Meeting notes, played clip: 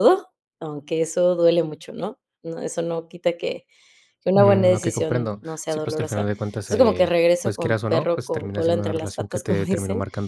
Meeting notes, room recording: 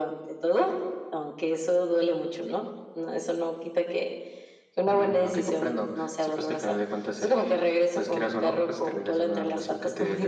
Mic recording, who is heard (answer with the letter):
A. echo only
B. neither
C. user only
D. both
A